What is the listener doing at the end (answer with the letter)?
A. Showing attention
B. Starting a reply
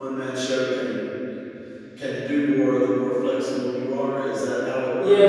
B